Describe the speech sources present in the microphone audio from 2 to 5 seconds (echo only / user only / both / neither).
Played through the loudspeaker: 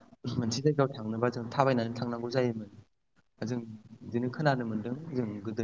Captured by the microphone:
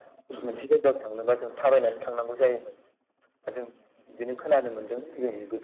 echo only